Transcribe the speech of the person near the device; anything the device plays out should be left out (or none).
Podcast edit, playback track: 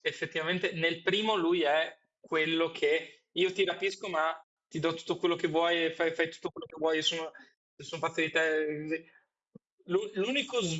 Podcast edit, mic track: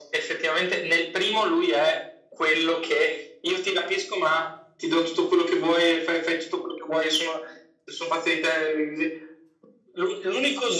none